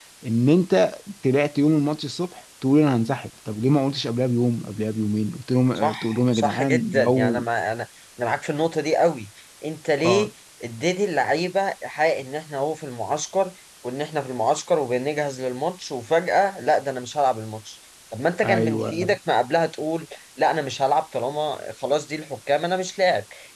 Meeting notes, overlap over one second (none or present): present